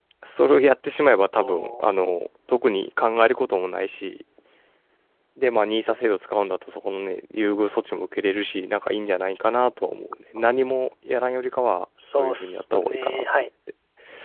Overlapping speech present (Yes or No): Yes